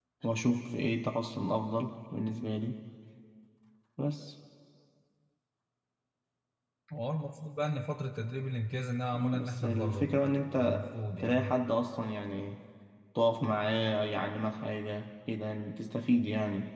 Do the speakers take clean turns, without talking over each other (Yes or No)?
No